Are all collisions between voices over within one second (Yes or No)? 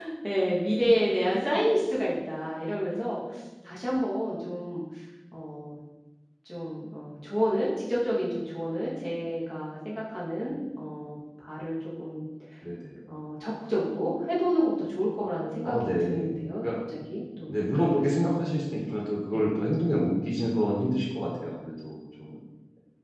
No